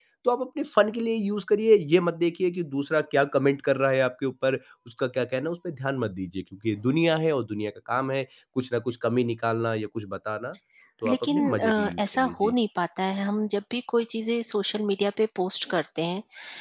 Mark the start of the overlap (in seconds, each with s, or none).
11.1 s